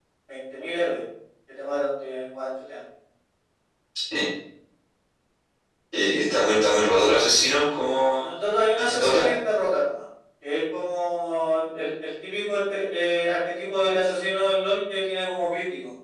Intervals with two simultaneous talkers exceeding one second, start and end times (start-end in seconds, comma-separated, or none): none